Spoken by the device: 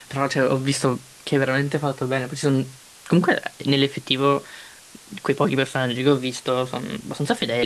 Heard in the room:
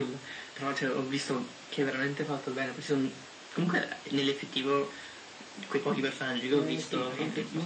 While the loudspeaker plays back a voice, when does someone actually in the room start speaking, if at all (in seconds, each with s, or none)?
6.5 s